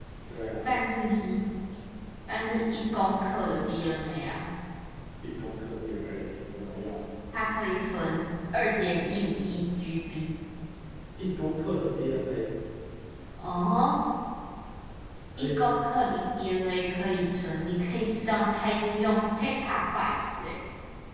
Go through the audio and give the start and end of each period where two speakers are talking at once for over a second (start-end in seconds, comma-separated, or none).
none